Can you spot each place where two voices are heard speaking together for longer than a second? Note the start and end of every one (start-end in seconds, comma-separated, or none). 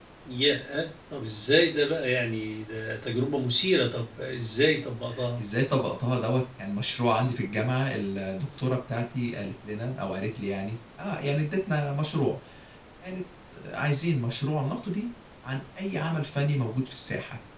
none